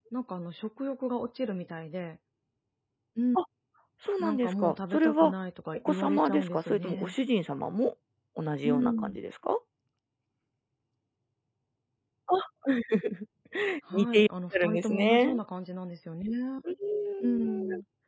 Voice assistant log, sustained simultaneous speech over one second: present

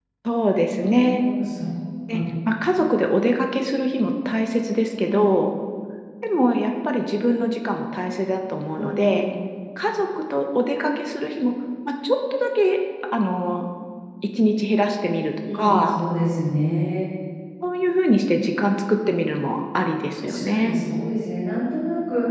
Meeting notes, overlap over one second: none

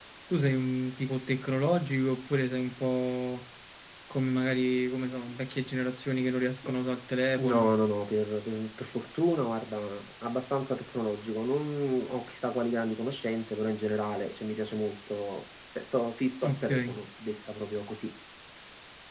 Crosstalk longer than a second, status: none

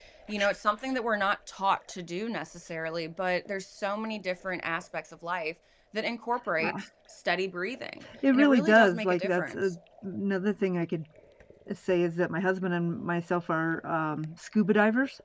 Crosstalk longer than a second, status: present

